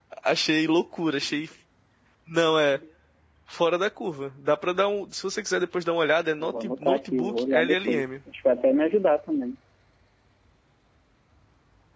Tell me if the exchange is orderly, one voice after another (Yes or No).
No